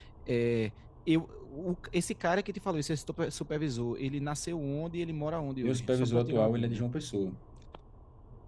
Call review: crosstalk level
present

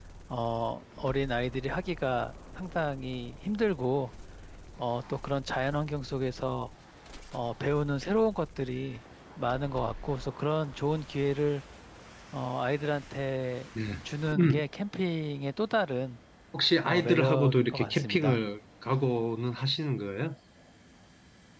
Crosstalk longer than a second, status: present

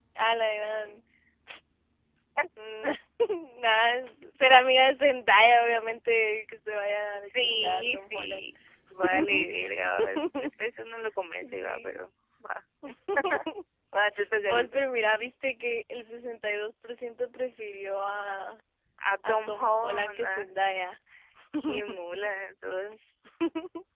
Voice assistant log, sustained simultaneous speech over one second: present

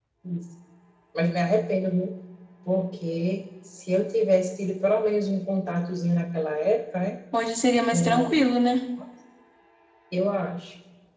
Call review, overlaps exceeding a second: none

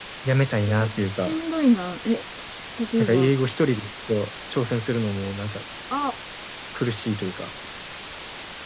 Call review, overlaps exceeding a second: none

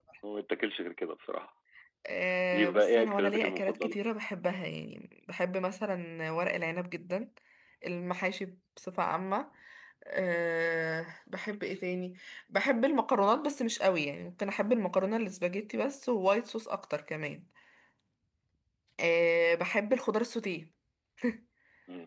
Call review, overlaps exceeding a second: present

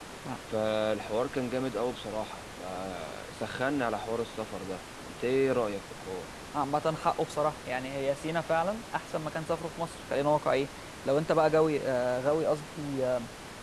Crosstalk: none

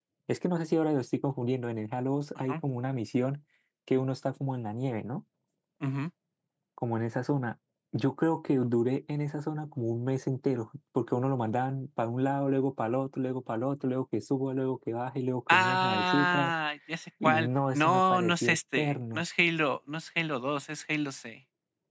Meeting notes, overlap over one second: present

